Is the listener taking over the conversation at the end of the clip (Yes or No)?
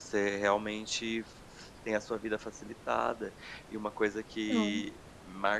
No